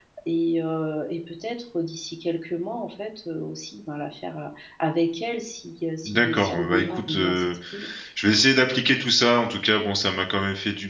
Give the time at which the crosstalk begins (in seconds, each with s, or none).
6.0 s